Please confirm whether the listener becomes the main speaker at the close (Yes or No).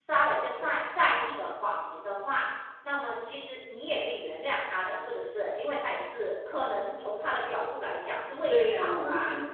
Yes